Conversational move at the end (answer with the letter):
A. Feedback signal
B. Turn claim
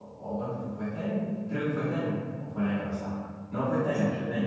A